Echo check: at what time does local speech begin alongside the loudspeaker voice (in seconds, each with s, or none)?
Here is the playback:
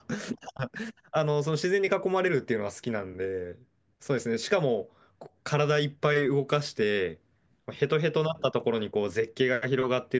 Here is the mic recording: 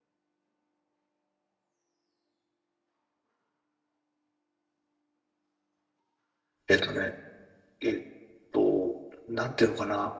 6.7 s